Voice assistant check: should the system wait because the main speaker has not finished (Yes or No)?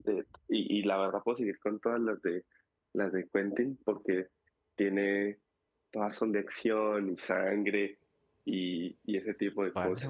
No